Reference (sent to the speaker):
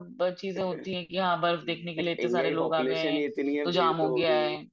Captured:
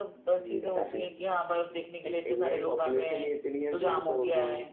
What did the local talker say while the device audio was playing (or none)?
हम्म डेफिनेटली डेफिनेटली